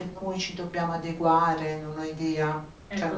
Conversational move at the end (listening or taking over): taking over